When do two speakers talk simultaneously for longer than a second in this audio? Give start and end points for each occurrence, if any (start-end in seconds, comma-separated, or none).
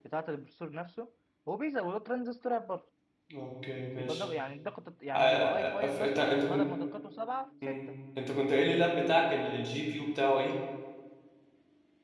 5.1-6.7